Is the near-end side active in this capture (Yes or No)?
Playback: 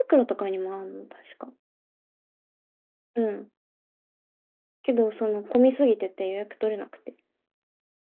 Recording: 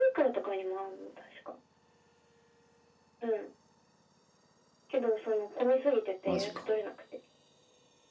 Yes